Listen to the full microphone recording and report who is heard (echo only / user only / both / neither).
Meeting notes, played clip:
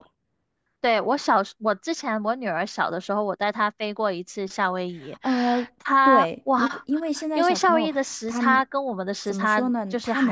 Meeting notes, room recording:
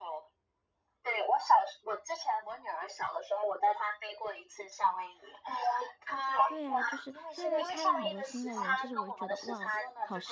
both